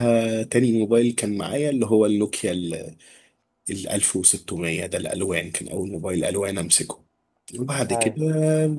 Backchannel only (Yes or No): Yes